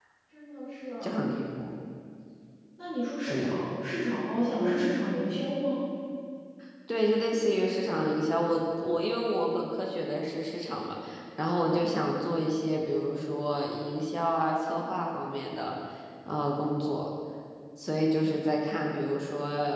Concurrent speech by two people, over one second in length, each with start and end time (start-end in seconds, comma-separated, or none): none